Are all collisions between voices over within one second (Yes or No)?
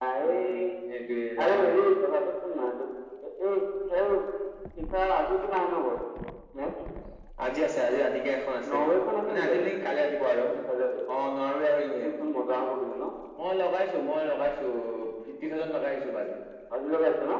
Yes